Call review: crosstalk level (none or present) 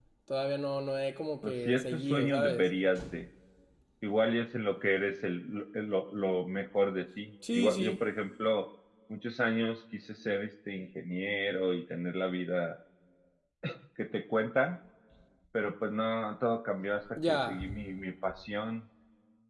present